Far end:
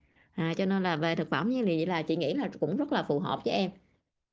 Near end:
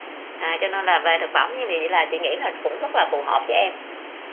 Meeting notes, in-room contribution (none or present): none